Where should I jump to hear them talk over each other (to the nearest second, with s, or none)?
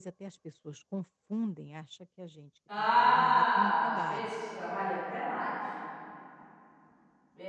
3 s